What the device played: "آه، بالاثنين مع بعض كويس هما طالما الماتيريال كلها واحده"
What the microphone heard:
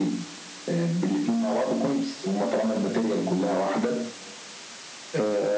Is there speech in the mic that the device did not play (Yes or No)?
No